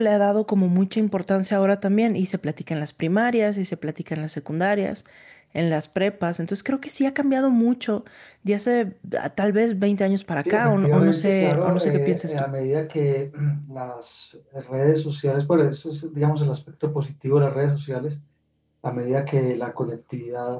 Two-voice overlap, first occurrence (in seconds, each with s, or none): 10.4 s